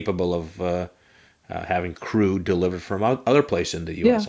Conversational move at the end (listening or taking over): listening